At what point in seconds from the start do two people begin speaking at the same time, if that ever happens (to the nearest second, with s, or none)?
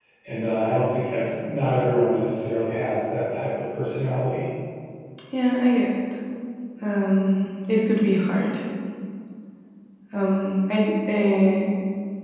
none